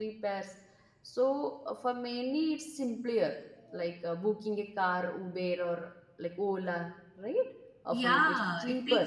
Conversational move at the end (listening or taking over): taking over